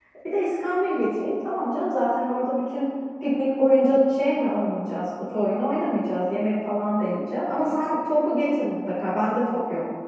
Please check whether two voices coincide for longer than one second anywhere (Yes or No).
No